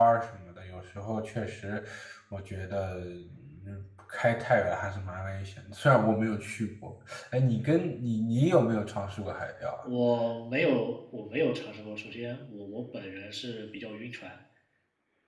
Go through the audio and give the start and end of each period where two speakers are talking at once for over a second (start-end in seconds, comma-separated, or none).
none